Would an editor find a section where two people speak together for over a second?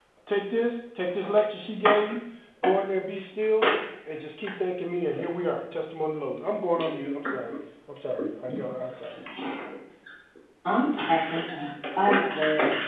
No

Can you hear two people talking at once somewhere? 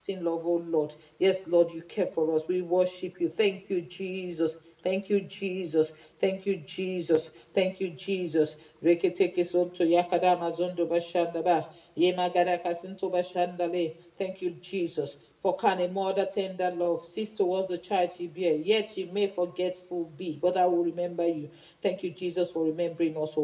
No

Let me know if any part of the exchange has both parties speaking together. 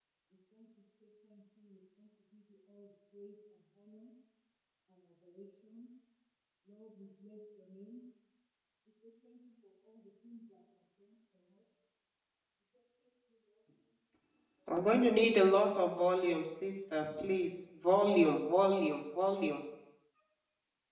No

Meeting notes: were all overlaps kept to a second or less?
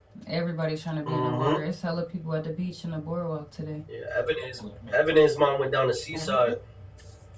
Yes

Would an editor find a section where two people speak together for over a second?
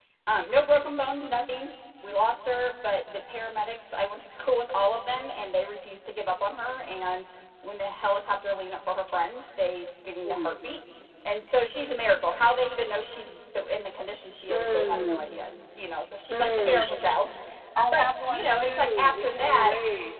Yes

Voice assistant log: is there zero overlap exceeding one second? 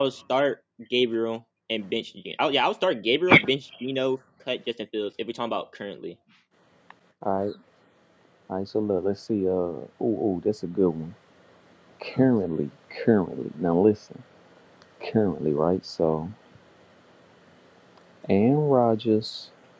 Yes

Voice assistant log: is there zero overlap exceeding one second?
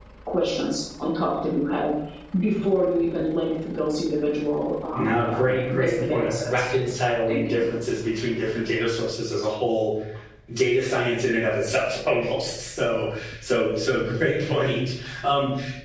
No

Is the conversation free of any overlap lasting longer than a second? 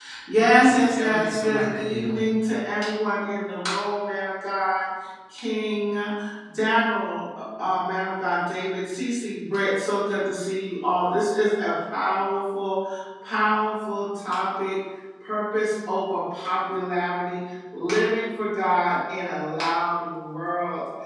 No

